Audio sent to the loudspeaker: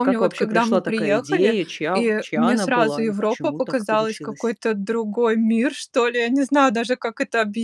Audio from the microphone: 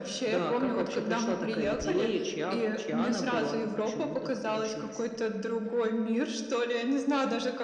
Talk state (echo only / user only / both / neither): echo only